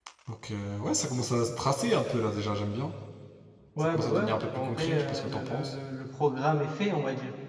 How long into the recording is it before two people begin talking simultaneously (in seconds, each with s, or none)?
3.8 s